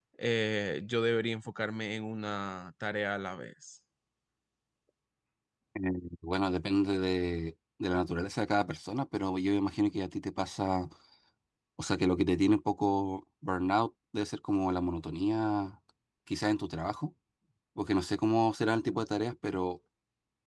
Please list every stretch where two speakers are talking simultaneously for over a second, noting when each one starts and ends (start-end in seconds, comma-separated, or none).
none